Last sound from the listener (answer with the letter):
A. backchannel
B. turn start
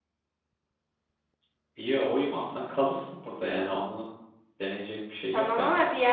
B